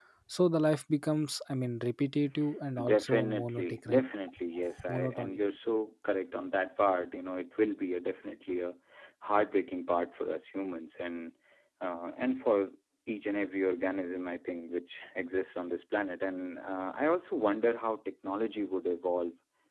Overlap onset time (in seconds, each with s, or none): 2.8 s